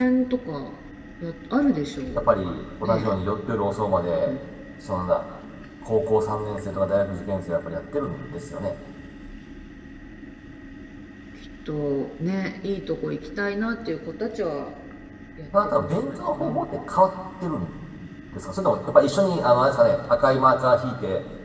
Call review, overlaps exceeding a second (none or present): present